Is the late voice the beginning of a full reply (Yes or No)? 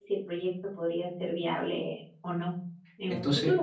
Yes